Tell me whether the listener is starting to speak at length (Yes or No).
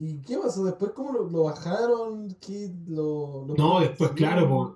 Yes